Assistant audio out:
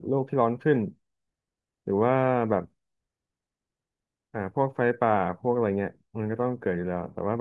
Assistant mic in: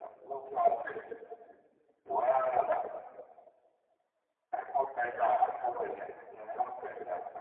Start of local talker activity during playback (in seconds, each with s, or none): none